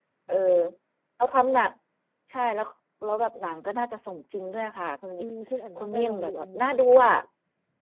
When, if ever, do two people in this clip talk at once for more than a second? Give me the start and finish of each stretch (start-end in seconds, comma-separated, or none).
5.8-7.1